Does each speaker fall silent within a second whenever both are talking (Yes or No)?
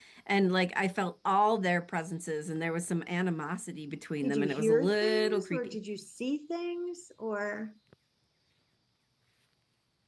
No